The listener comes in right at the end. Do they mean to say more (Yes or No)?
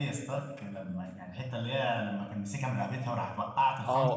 Yes